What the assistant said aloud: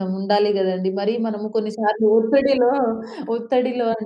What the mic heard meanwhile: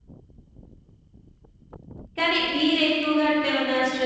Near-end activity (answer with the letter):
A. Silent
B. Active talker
B